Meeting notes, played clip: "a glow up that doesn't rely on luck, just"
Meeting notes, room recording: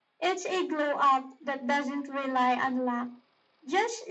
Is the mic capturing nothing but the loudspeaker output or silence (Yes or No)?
Yes